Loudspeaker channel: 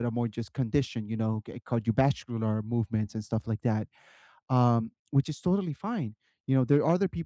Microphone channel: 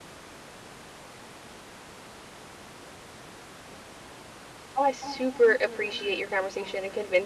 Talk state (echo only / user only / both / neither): user only